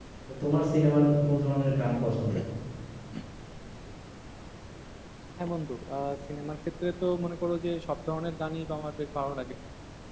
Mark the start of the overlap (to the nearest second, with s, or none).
none